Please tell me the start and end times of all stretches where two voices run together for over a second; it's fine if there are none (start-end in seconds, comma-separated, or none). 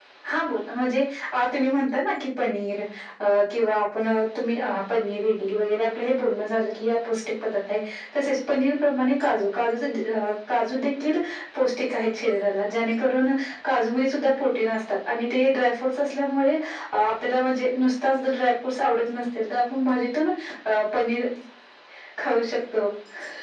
none